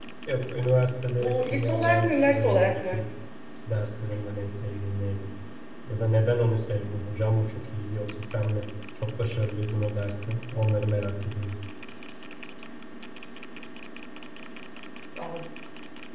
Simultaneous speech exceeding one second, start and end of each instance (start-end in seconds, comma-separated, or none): 1.2-3.0